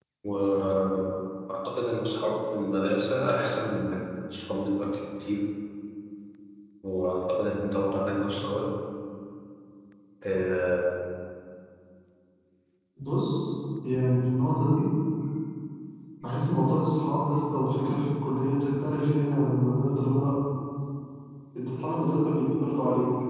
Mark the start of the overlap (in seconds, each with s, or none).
none